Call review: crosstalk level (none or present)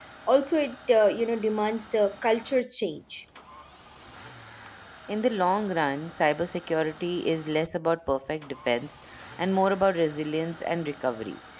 none